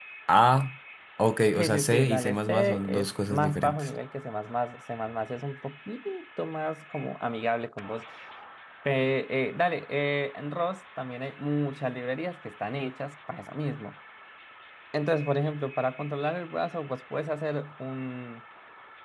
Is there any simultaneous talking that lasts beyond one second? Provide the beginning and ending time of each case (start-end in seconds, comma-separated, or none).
1.6-3.9